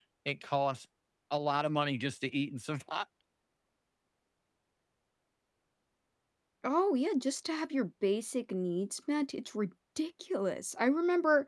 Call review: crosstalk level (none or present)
none